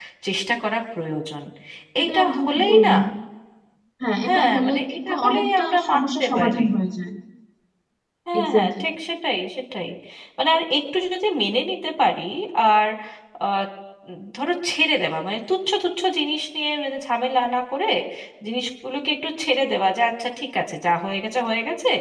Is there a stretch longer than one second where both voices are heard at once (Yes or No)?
Yes